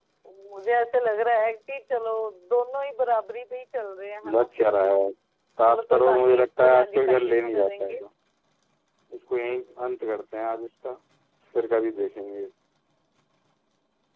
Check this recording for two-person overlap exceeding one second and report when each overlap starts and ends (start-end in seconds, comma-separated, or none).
5.7-8.0